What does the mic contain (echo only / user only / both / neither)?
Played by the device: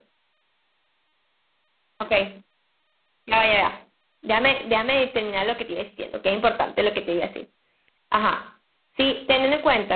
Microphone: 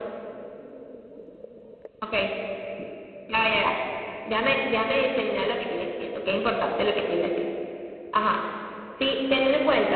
echo only